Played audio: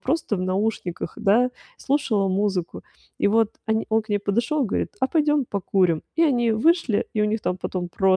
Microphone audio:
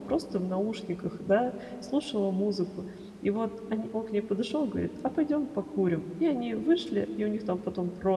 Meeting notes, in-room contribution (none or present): none